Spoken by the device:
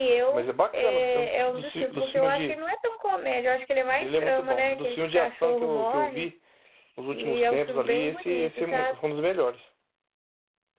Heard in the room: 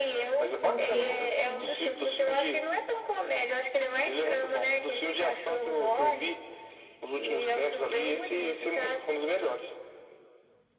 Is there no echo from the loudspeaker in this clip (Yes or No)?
No